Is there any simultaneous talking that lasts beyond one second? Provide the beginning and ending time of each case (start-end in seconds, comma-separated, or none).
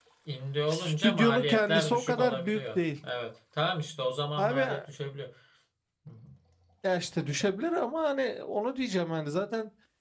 0.7-2.8